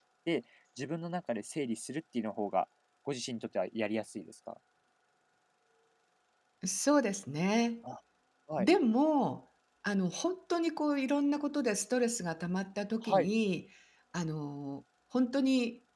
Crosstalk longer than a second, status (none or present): none